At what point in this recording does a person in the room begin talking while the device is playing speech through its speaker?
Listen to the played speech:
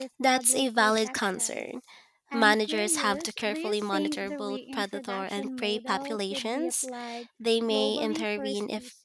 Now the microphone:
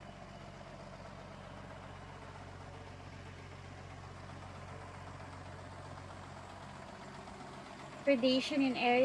8.1 s

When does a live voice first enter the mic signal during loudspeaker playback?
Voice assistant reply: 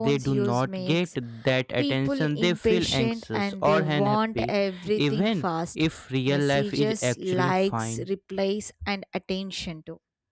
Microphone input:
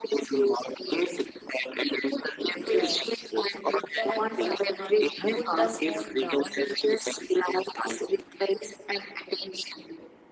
2.5 s

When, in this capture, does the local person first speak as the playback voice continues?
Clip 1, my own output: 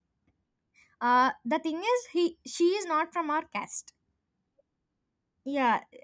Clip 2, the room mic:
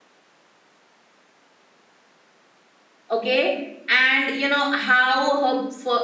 3.1 s

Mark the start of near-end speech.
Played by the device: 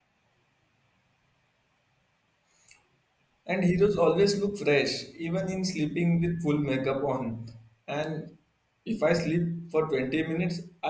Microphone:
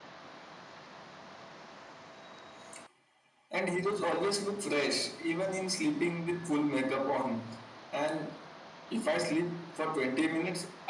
none

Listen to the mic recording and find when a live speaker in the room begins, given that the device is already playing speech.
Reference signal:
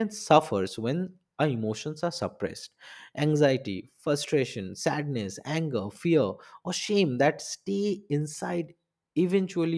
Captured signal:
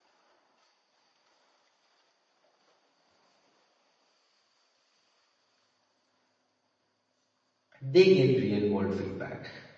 7.8 s

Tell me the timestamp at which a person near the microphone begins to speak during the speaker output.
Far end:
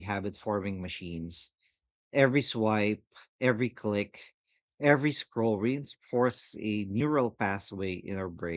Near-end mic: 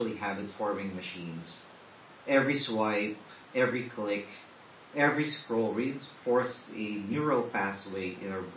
none

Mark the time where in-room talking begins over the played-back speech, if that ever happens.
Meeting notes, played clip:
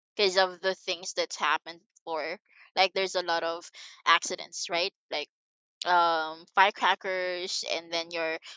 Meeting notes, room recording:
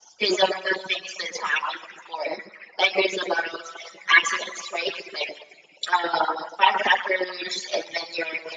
none

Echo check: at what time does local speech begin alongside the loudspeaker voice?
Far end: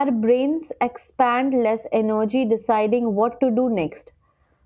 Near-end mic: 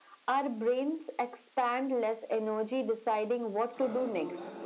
3.7 s

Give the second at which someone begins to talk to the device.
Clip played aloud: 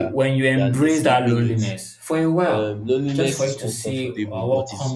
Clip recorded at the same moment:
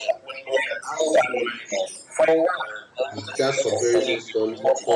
3.1 s

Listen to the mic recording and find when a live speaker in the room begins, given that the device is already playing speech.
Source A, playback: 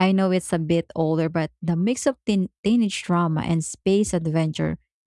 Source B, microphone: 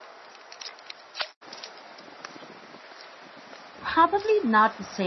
3.8 s

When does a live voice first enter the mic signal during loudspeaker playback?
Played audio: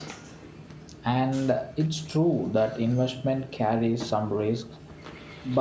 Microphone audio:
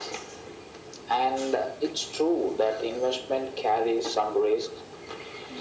none

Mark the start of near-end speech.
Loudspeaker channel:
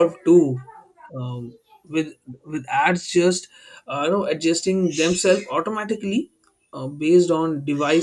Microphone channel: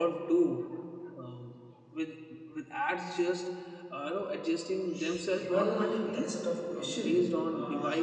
5.4 s

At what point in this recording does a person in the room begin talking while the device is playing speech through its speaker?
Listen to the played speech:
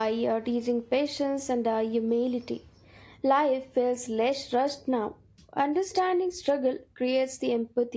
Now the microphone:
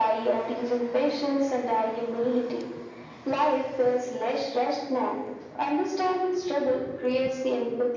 none

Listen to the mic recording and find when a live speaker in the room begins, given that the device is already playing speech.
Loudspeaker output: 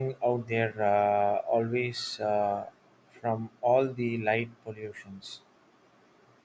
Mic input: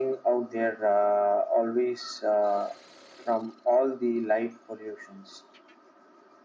none

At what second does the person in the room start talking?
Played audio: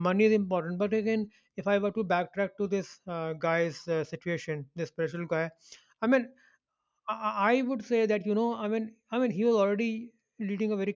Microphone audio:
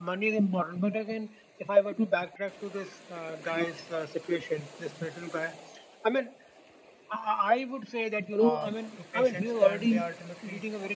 8.4 s

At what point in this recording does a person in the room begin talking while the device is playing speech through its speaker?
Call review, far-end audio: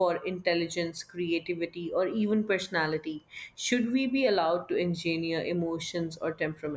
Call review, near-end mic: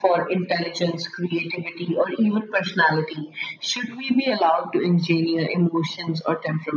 none

